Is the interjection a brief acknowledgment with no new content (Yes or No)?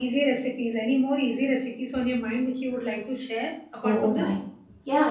No